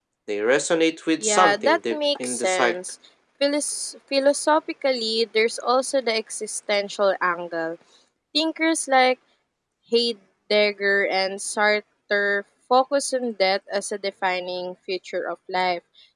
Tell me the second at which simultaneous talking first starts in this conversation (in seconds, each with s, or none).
1.2 s